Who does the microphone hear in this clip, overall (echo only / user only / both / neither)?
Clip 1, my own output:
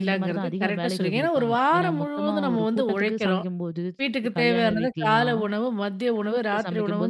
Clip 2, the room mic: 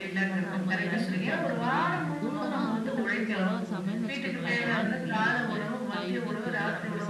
both